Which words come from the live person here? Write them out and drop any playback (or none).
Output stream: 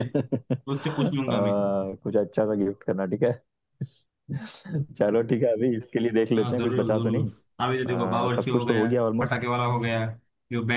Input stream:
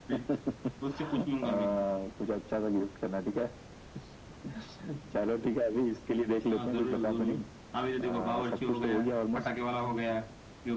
none